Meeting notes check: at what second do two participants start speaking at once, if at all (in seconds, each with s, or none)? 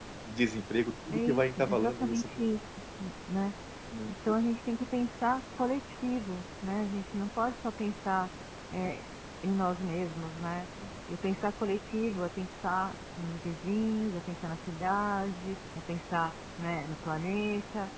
1.1 s